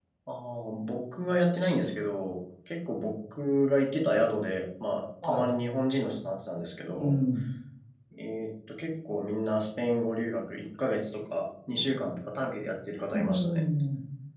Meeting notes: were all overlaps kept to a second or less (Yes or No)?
Yes